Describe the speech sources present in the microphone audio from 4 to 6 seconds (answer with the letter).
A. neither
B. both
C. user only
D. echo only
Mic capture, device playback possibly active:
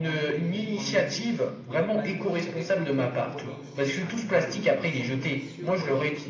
B